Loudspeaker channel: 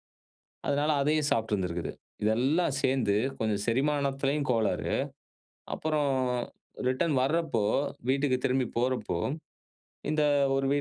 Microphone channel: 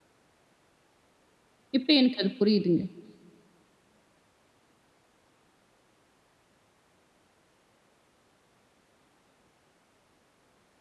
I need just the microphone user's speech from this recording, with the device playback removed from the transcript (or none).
இப்போ எனக்கு அது புரியுதுங்க.